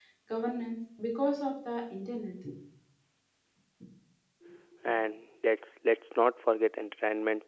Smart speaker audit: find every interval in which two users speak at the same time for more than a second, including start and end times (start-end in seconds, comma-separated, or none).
none